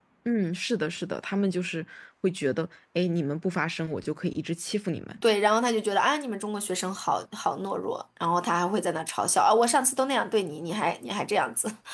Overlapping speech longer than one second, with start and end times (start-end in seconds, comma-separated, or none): none